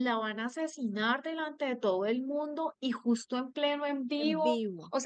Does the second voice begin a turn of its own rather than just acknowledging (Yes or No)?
No